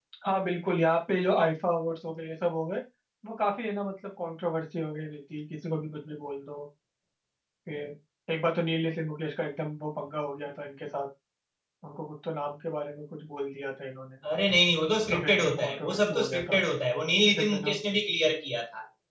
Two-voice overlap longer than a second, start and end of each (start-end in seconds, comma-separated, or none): 15.1-16.6